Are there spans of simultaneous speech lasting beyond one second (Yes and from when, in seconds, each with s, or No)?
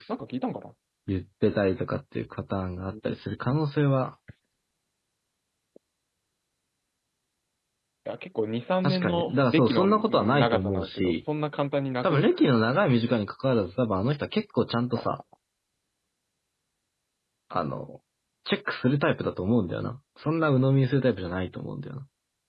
Yes, from 8.8 s